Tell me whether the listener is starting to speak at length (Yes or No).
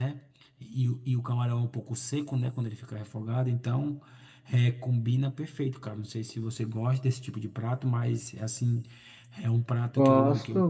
Yes